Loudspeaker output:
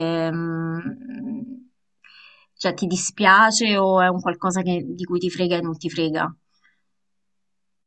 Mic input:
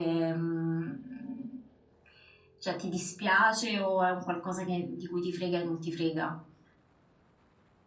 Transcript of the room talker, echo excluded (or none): none